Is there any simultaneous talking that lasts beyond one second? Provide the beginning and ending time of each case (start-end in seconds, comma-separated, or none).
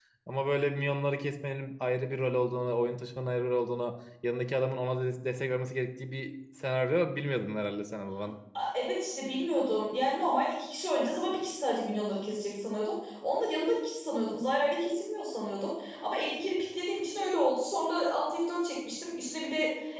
none